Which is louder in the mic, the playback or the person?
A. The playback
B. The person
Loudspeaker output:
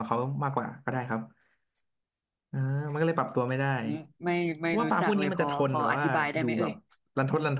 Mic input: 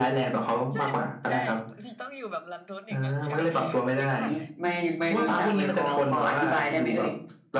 A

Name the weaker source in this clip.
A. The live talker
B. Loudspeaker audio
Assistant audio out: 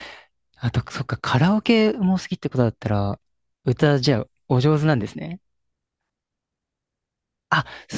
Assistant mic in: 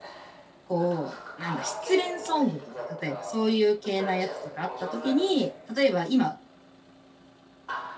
B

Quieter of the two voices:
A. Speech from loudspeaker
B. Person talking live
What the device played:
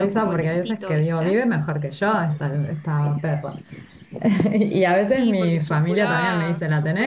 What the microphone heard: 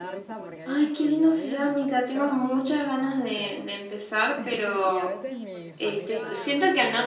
A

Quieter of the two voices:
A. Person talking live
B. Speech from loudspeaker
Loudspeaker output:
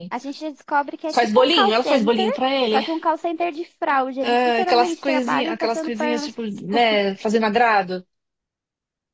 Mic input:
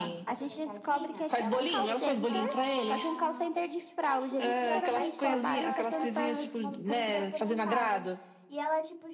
A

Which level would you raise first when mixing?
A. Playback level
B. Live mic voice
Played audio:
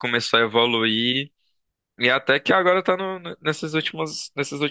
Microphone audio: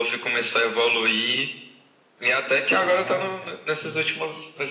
B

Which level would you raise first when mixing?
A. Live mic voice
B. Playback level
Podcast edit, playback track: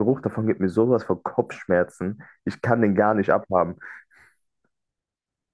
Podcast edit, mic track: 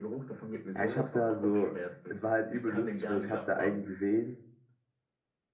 B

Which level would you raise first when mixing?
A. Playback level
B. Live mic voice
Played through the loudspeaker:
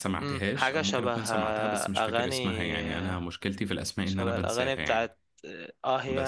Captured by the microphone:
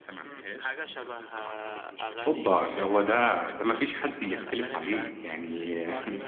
A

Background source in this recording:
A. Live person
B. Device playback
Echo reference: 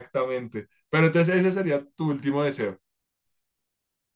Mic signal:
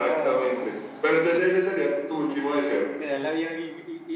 A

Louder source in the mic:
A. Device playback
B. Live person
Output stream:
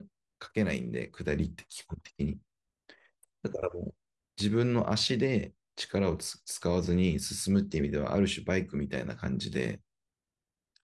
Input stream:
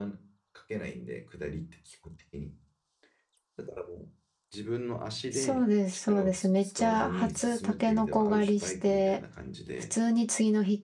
B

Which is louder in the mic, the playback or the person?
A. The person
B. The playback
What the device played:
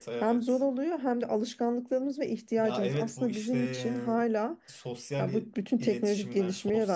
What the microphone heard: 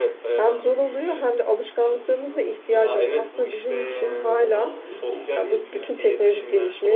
B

